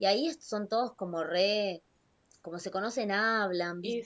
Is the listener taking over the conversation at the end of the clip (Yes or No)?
Yes